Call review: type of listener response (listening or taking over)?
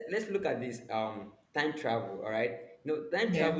listening